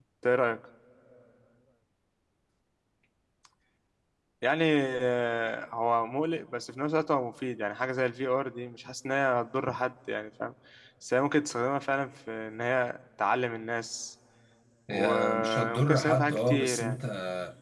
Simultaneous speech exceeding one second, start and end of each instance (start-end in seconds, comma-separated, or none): 14.9-17.0